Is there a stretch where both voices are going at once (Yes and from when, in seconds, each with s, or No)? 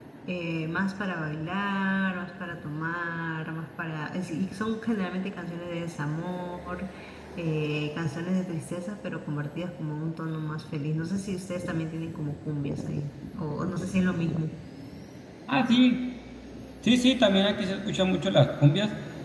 No